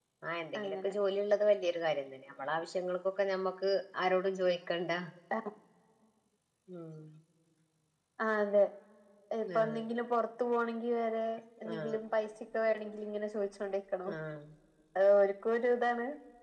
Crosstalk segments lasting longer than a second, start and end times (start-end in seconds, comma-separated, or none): none